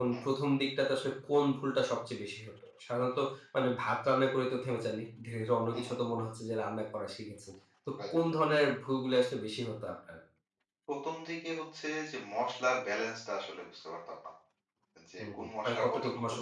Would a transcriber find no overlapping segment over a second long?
No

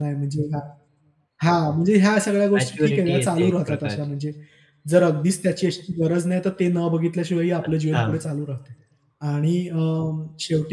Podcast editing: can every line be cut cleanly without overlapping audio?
No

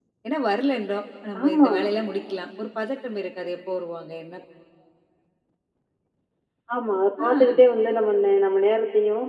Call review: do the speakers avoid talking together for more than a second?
Yes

